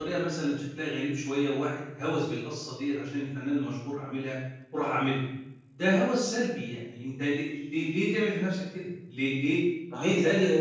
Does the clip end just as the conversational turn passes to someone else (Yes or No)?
Yes